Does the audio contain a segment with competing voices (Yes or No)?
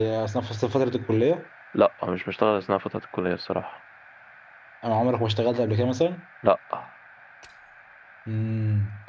No